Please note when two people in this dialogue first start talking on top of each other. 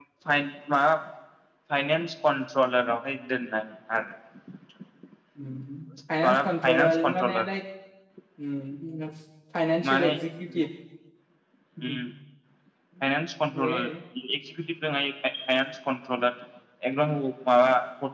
6 s

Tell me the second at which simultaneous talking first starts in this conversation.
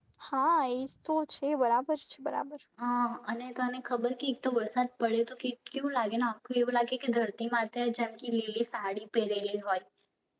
none

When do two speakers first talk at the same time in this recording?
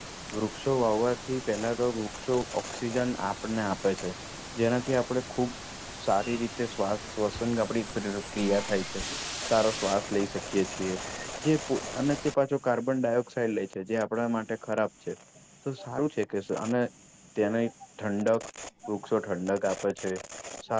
none

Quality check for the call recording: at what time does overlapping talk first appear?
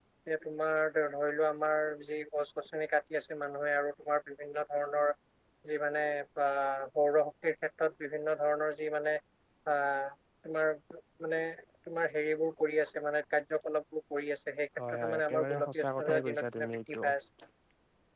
15 s

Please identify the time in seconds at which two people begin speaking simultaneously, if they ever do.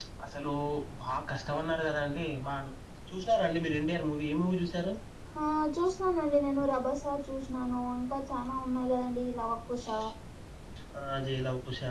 none

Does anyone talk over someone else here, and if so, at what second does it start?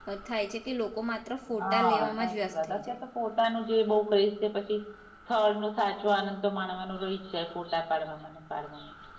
2 s

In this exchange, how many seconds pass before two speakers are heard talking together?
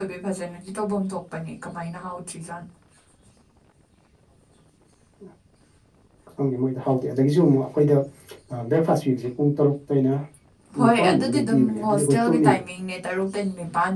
11 s

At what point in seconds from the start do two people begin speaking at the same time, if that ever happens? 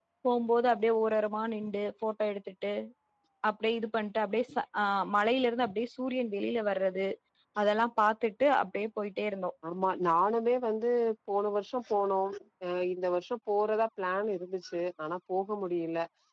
none

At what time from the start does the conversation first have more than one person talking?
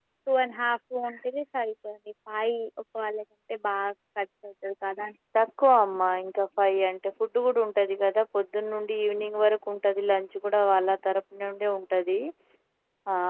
none

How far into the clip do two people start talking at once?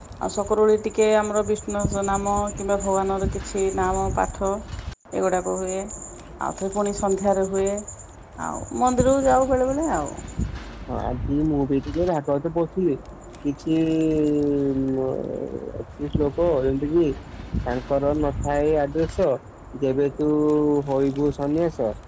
none

